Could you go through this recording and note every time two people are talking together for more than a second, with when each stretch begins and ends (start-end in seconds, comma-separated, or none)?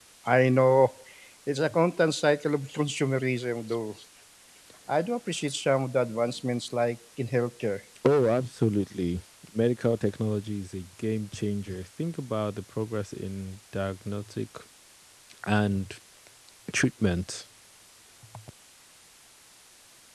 none